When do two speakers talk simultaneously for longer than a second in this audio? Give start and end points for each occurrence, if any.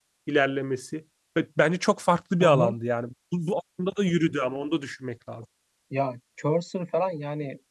none

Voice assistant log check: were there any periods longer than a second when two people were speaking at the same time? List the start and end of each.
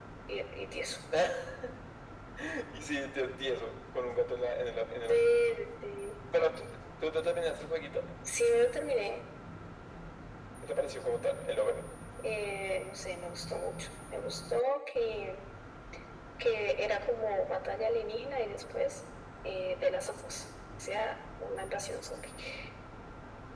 none

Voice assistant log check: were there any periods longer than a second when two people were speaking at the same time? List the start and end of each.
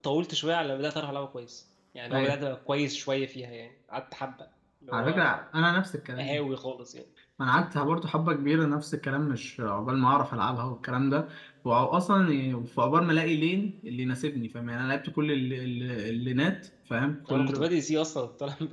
none

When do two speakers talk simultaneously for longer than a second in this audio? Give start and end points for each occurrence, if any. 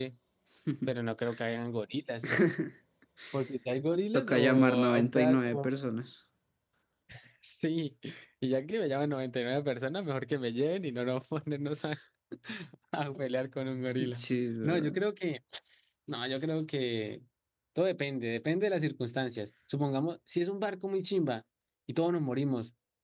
4.1-5.7

